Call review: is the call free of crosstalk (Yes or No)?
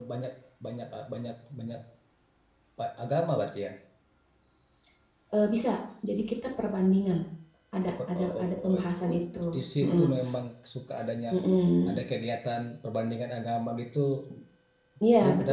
No